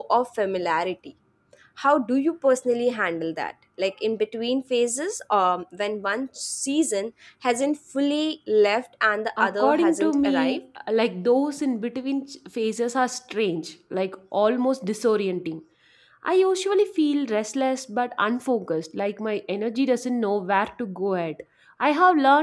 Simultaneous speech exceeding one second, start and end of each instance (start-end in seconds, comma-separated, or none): 9.4-10.6